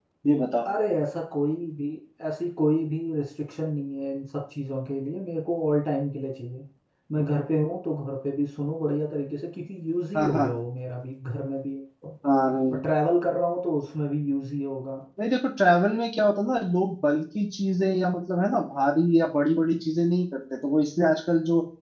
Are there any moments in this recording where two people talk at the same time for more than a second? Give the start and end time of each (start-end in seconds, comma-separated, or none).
none